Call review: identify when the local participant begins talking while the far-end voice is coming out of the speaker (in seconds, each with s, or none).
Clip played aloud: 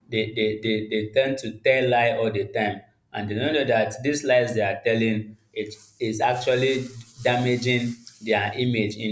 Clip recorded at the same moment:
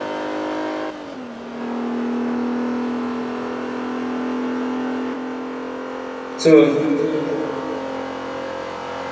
6.3 s